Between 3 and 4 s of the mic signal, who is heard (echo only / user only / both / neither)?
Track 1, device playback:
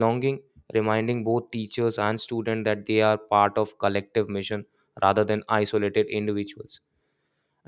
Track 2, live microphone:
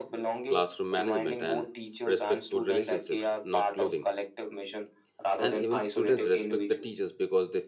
both